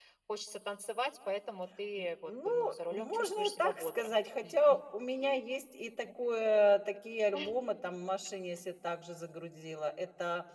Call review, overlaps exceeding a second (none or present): present